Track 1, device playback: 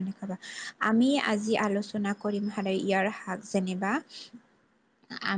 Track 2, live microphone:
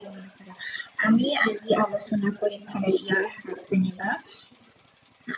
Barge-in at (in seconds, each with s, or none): none